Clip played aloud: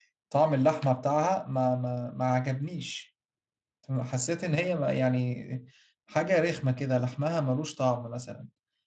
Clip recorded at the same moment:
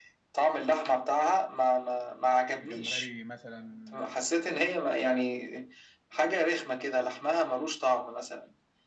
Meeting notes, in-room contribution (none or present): present